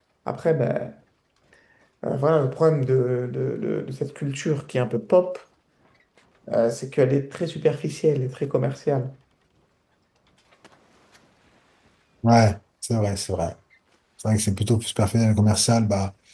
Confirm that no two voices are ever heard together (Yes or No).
Yes